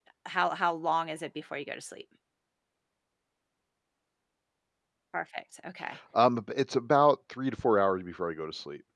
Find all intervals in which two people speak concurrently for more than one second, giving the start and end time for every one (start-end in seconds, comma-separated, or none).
none